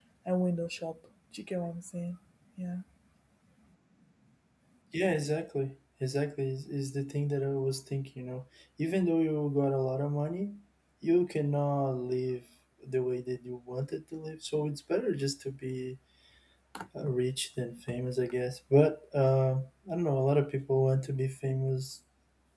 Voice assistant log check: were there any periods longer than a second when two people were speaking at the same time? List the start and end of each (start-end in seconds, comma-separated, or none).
none